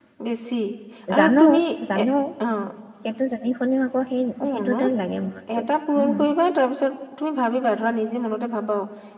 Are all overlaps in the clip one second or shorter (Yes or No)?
Yes